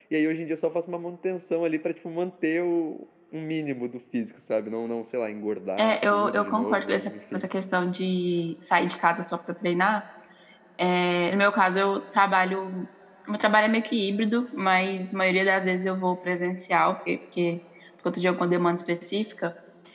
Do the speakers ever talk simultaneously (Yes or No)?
Yes